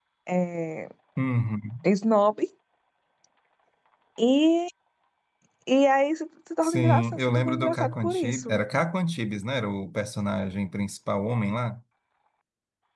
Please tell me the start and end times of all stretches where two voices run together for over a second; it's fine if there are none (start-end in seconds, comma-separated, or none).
6.6-8.5